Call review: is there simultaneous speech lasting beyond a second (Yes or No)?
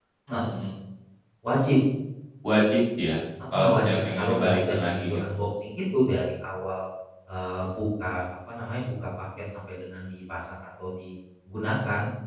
Yes